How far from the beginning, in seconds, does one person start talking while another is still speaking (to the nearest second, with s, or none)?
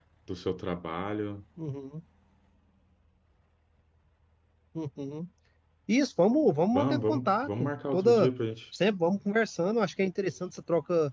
7 s